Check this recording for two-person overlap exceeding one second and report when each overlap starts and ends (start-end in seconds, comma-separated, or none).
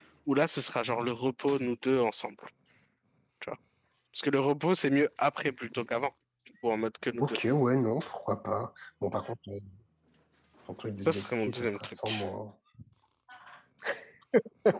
11.0-12.2